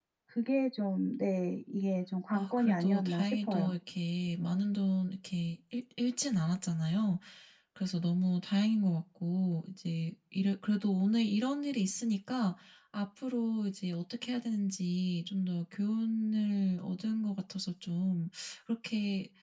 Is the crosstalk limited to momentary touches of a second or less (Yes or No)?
No